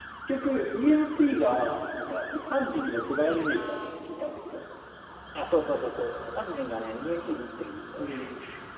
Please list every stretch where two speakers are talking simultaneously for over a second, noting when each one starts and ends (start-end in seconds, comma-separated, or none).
none